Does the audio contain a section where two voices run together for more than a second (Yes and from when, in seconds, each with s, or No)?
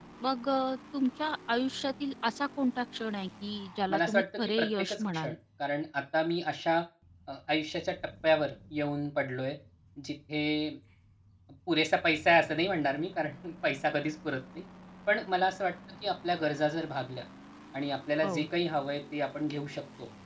Yes, from 3.9 s